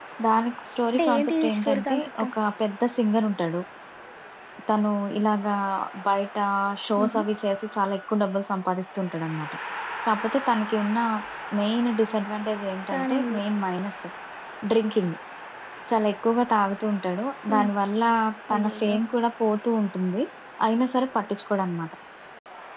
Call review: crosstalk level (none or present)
present